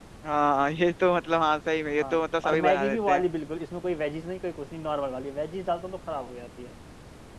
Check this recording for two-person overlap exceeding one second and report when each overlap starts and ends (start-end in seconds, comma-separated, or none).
2.0-3.2